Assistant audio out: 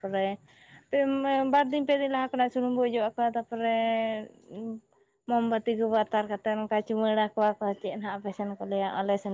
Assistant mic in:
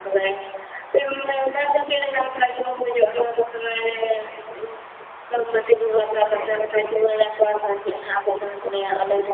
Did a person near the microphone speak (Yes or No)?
Yes